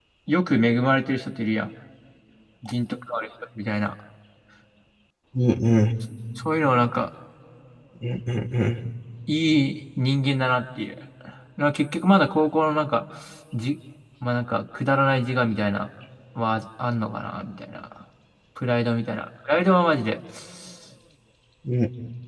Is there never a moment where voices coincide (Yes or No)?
Yes